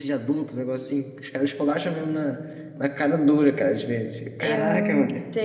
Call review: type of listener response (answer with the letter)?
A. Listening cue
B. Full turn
B